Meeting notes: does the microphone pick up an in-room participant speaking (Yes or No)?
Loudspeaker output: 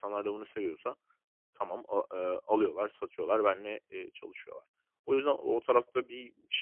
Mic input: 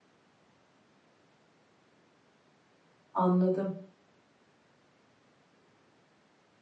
Yes